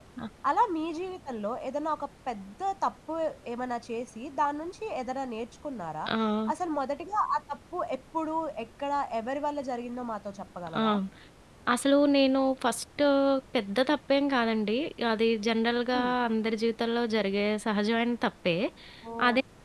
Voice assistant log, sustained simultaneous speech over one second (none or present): none